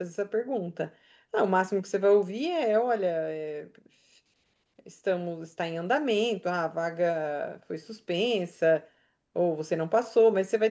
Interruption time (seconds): none

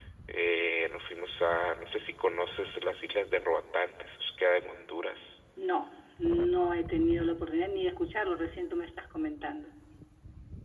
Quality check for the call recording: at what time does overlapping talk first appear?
none

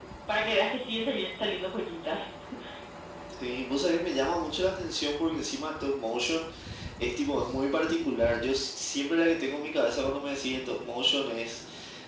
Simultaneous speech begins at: none

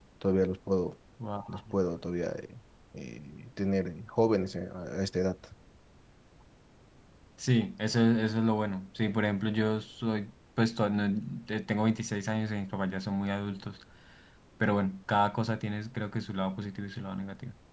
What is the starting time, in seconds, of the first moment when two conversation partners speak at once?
none

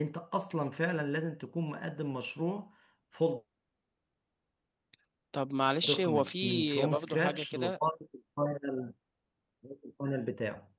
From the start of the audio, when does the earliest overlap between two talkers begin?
6 s

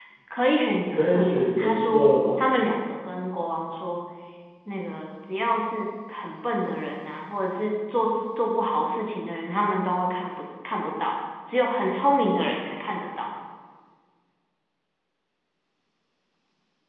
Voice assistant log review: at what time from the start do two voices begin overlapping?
1 s

